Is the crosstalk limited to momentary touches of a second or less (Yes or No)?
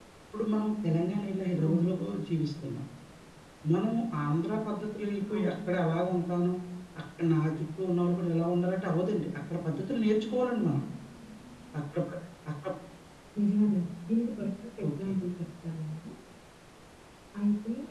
Yes